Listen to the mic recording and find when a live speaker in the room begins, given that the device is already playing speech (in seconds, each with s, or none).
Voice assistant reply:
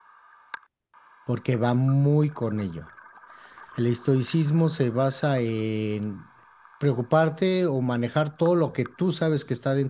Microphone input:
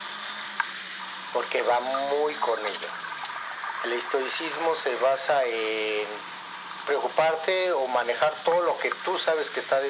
none